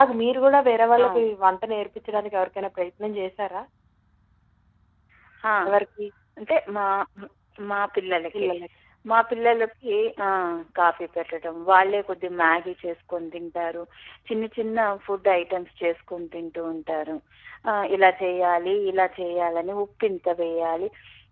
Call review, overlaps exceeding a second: none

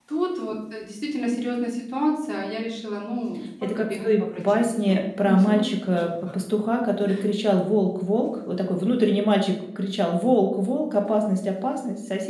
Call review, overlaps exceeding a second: present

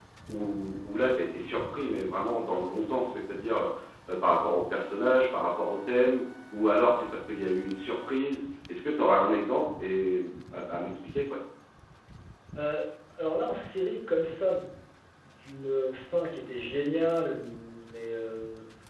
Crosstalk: none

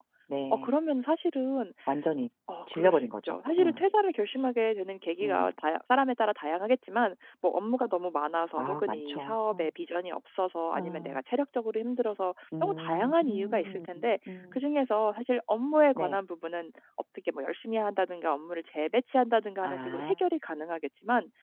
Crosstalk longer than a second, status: present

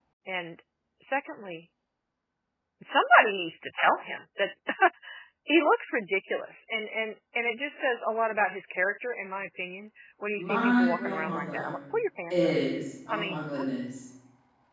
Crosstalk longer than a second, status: present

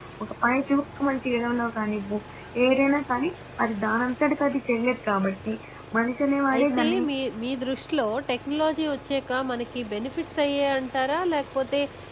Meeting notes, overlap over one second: none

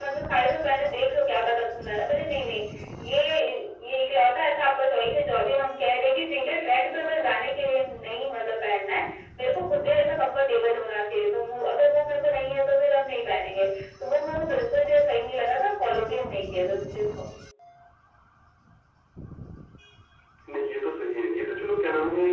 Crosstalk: none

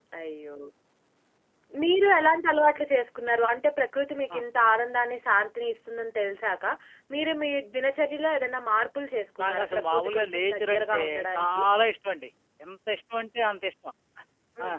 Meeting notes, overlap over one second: present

